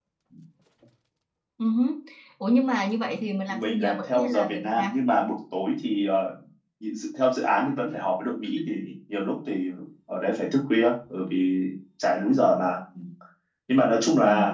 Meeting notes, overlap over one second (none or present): present